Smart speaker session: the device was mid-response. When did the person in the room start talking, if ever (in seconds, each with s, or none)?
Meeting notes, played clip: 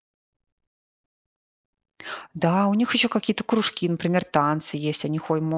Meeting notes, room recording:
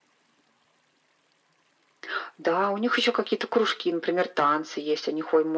none